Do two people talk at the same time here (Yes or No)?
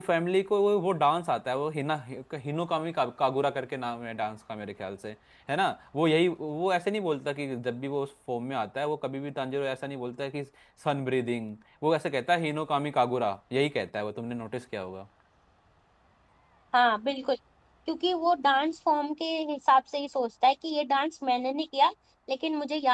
No